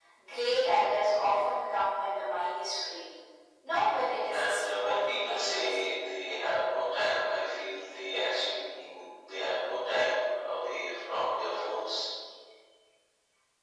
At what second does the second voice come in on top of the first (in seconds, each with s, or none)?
4.3 s